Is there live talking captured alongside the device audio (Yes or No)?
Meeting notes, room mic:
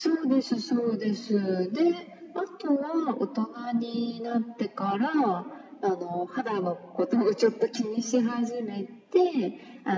No